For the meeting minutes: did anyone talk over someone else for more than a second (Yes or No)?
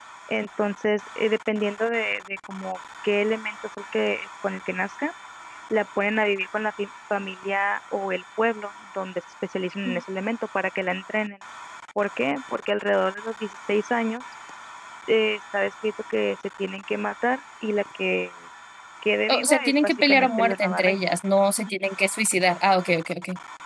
Yes